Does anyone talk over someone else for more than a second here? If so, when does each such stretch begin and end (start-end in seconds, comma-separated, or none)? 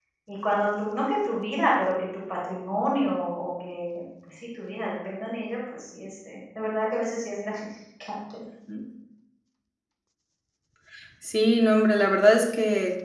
none